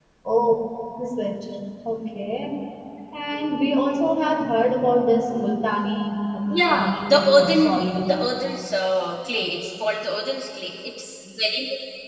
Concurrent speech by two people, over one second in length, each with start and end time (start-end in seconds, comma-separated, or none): 6.5-8.1